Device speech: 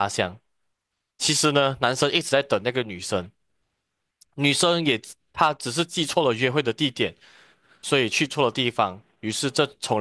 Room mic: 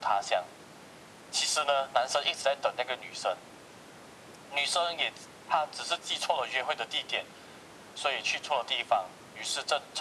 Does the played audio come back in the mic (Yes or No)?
Yes